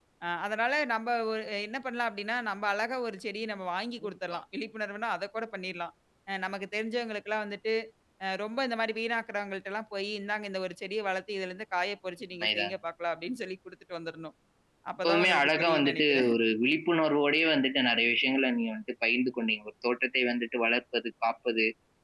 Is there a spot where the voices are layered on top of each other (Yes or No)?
Yes